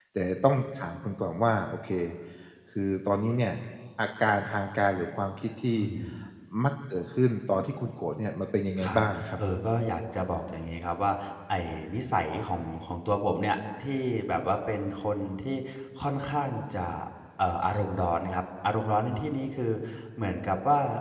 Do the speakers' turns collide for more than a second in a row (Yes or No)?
No